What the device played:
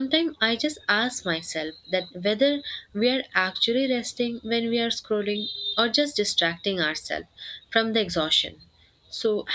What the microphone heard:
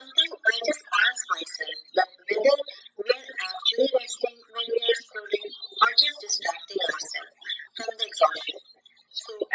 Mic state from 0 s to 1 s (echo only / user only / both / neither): echo only